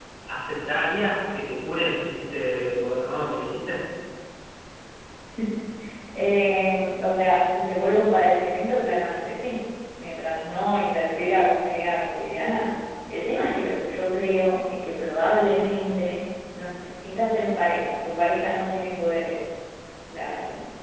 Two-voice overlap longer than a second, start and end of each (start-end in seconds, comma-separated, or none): none